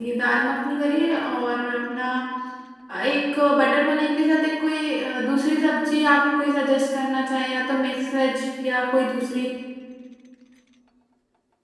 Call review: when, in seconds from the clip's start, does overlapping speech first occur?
none

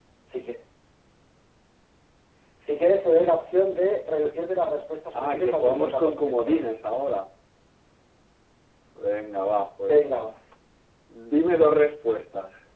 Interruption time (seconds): 5.2 s

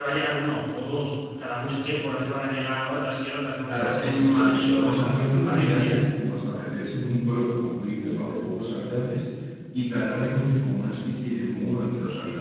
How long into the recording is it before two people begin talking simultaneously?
3.6 s

